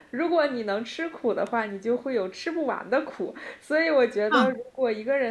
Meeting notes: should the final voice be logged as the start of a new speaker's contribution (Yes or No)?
No